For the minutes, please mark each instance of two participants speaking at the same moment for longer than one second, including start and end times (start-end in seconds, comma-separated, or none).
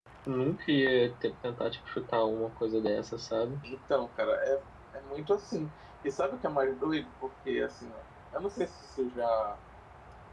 none